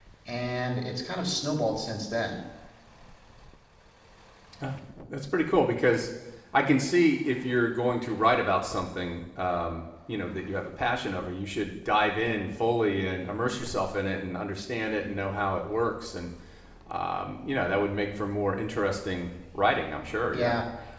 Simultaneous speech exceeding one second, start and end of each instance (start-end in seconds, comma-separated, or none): none